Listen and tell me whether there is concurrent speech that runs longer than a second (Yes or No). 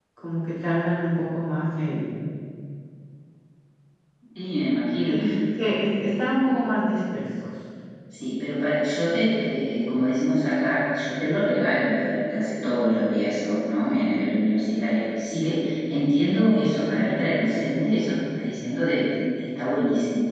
No